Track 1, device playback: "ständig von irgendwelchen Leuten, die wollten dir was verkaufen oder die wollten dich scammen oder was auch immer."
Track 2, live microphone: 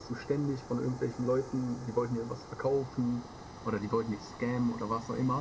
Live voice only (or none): none